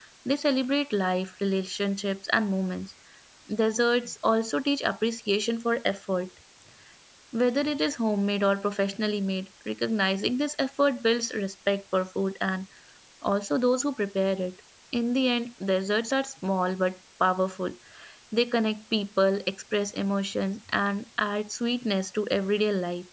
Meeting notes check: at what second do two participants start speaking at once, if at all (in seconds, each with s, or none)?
none